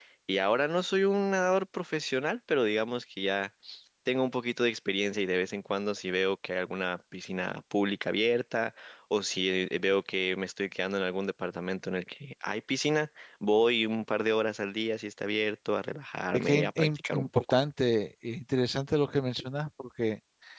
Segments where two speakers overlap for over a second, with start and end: 16.3-17.6

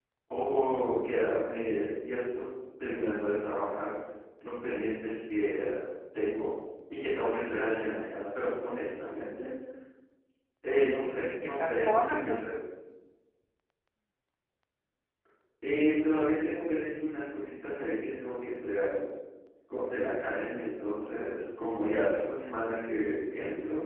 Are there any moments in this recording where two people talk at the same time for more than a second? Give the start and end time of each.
11.1-12.4

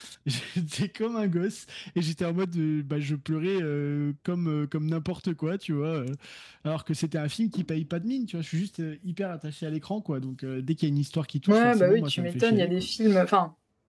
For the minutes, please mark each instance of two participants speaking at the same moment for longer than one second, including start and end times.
11.5-12.8

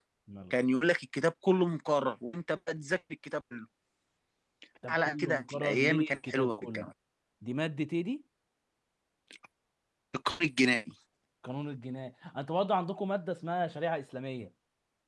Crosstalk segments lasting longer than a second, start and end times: 4.9-6.9

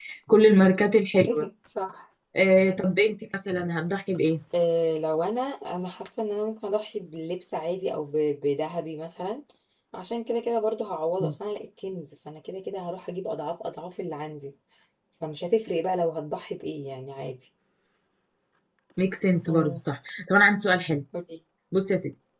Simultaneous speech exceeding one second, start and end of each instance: none

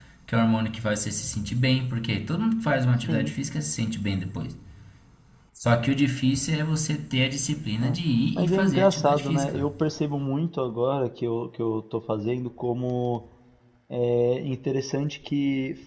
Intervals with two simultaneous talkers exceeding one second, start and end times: 8.3-9.7

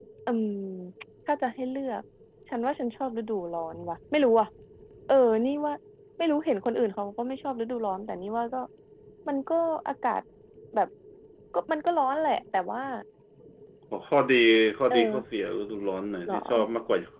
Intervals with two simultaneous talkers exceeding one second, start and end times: none

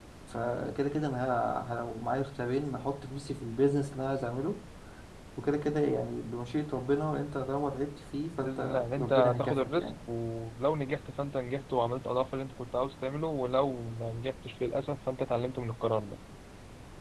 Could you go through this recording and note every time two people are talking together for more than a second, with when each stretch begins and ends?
8.4-9.9

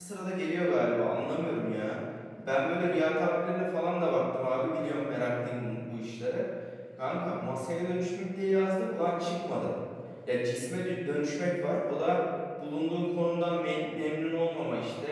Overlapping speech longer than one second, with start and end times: none

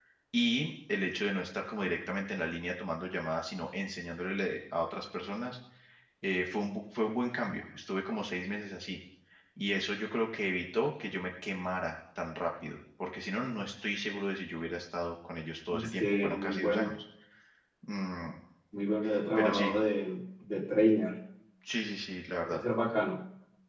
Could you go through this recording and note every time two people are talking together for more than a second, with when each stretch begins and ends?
15.7-16.9

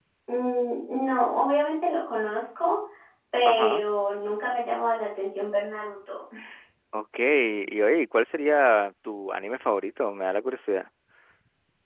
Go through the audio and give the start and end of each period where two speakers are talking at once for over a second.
none

